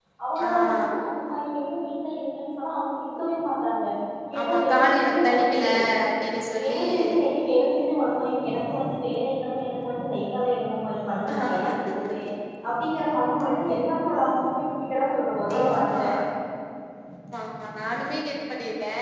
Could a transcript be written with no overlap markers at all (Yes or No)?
No